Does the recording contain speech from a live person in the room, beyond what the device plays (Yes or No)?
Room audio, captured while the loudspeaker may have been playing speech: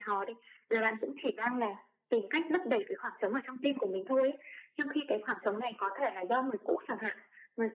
No